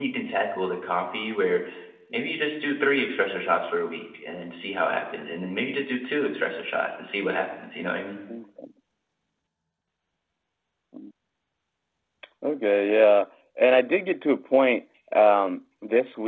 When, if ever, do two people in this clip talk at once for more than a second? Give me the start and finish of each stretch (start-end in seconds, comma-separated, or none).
none